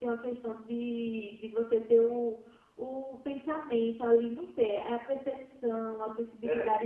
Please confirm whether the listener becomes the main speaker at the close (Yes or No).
No